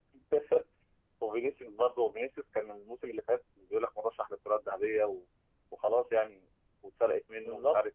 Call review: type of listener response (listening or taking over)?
listening